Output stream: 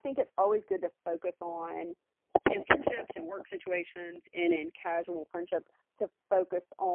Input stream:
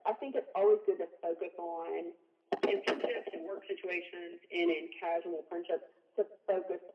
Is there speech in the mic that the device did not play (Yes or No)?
No